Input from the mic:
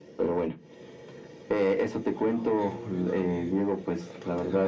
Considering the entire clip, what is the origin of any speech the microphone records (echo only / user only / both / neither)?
both